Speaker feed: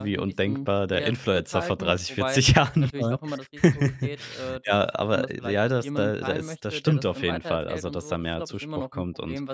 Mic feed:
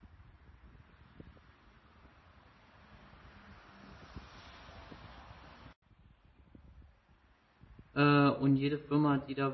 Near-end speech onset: 7.9 s

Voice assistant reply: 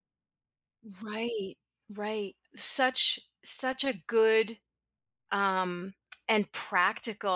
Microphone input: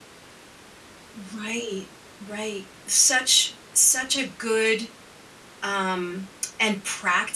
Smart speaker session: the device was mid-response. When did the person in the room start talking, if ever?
none

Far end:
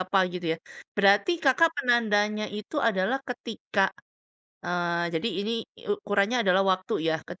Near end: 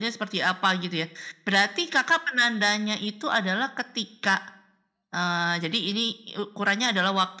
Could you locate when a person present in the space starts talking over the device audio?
none

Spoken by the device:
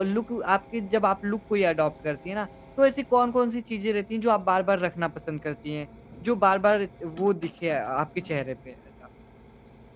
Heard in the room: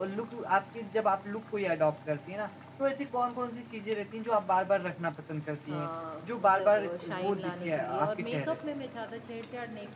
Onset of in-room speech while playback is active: 5.7 s

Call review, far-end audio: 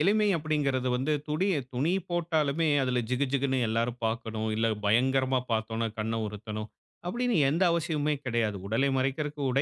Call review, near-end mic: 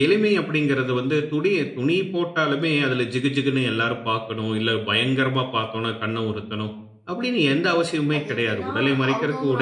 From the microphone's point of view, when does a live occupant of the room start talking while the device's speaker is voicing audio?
8.2 s

